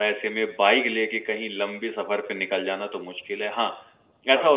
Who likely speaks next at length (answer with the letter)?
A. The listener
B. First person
B